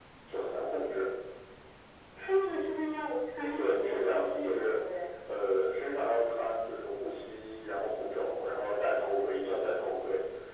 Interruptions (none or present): present